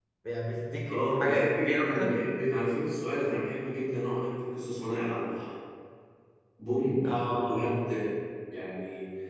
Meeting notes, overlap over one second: present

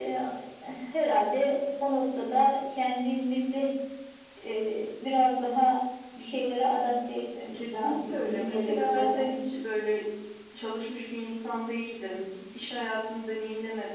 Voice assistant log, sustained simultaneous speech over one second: present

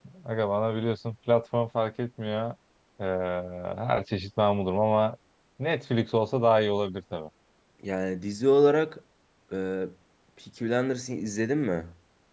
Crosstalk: none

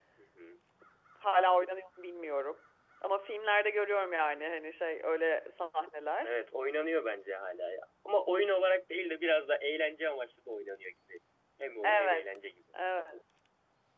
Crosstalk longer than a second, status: none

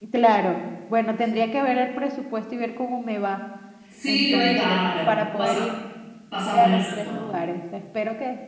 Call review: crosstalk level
present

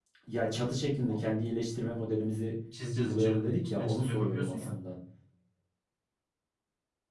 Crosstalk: present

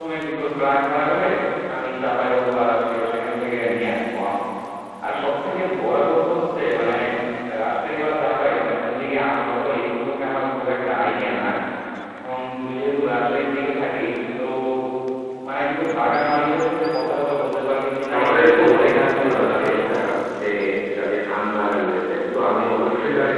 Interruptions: present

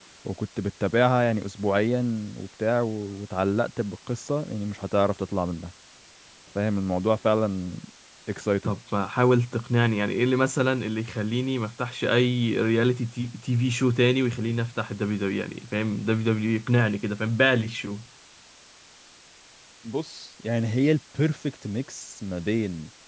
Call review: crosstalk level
none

